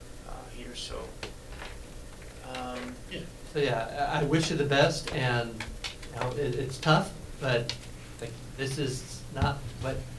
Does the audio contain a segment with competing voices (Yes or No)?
No